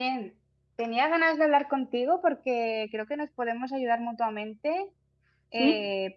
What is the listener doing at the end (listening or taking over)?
listening